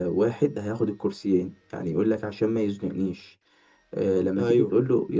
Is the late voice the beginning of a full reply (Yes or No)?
No